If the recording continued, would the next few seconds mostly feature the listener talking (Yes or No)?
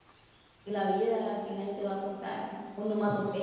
Yes